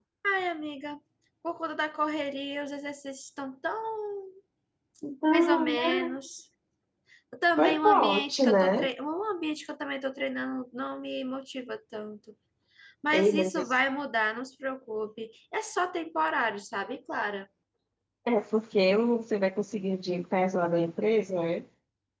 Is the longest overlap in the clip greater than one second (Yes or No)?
Yes